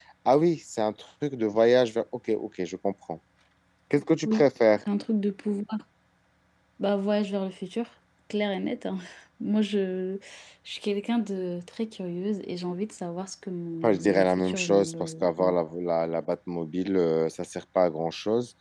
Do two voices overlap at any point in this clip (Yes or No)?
Yes